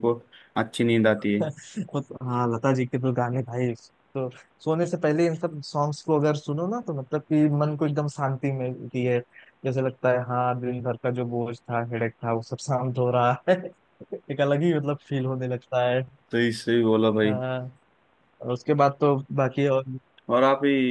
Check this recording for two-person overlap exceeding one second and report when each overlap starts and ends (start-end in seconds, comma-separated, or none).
none